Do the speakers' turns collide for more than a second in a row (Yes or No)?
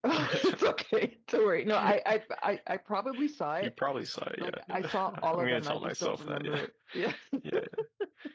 Yes